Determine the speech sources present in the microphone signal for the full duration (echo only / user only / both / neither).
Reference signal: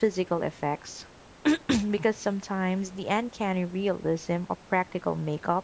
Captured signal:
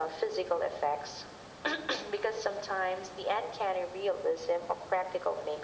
echo only